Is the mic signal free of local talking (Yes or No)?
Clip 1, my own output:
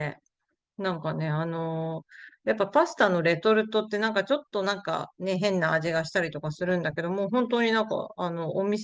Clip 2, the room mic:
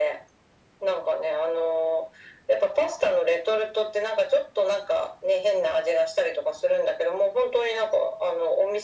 Yes